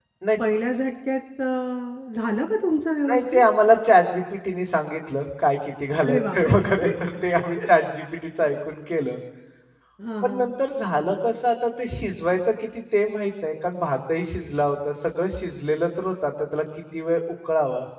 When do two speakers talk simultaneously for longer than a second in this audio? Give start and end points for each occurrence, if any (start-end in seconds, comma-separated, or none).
none